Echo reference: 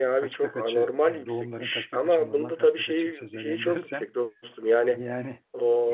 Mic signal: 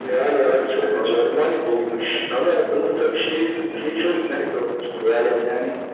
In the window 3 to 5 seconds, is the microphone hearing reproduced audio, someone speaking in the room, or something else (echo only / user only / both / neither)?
echo only